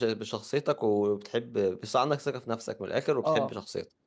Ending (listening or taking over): taking over